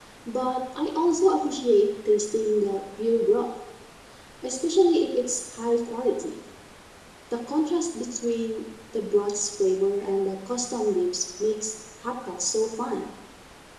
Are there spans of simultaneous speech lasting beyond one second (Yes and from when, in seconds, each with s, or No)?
No